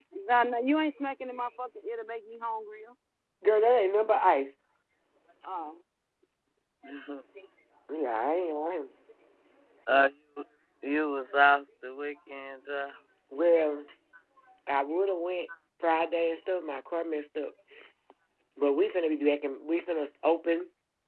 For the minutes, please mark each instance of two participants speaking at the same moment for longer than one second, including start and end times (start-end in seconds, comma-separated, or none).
none